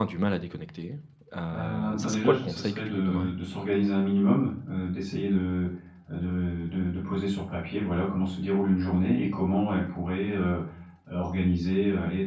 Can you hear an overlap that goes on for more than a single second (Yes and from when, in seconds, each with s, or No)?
Yes, from 1.5 s